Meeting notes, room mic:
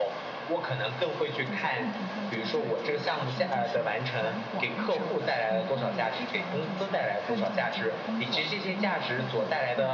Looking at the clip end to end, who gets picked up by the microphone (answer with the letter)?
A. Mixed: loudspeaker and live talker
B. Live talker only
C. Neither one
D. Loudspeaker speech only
A